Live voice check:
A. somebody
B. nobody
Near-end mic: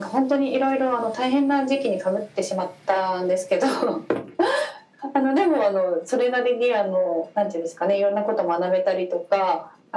B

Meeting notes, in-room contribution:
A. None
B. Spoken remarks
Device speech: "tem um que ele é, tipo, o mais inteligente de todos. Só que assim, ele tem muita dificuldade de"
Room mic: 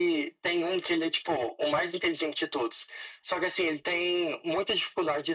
A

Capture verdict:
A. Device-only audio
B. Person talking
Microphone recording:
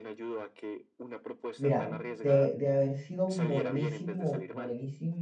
B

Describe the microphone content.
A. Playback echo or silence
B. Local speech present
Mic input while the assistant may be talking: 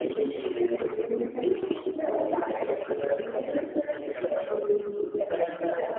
A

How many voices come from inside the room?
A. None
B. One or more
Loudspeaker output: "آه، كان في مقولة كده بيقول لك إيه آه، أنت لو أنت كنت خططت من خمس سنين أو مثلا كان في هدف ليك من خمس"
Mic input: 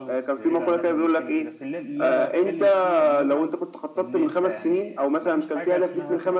B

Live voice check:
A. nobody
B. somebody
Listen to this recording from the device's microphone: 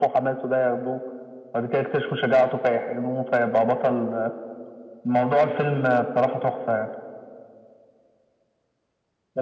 A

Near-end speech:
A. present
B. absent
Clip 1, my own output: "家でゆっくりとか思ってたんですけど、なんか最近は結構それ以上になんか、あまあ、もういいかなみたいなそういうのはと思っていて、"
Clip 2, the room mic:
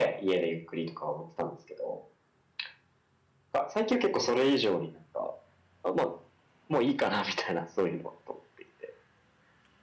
B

